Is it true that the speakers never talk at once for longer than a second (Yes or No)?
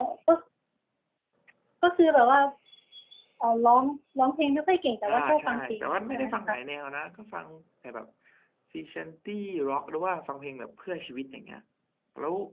No